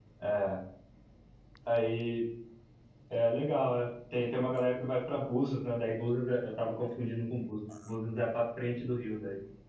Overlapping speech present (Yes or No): No